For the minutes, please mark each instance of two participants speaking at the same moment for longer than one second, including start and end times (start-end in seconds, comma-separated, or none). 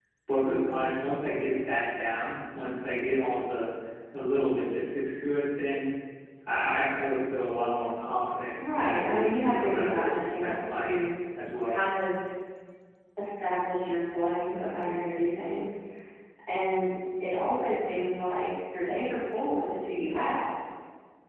8.6-11.0